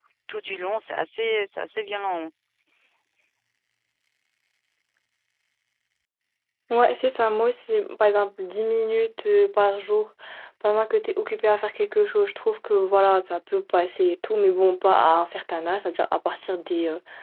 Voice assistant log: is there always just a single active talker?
Yes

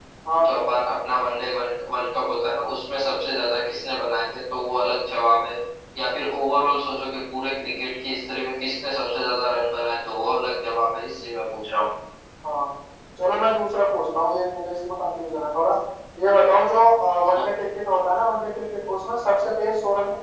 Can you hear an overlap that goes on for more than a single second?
No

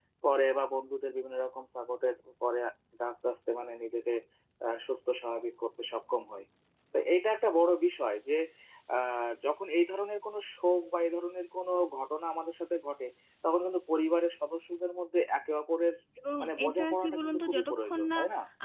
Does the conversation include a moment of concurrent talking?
Yes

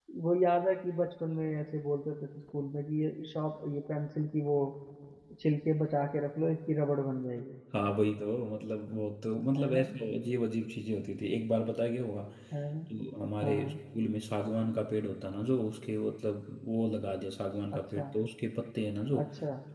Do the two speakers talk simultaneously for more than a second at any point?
No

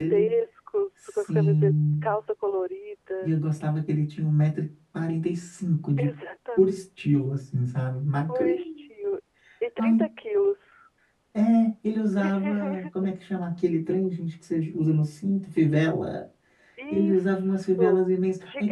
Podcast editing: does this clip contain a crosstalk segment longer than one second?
Yes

